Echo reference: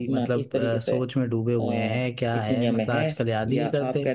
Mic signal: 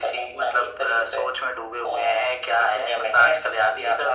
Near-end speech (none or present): none